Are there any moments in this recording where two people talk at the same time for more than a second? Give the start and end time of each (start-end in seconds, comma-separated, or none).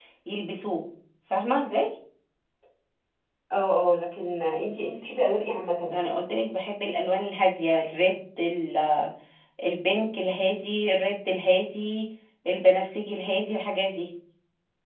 none